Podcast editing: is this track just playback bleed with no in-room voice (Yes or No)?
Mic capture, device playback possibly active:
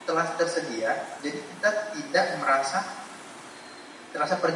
No